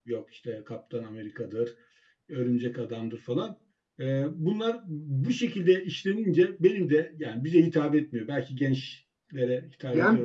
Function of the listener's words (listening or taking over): taking over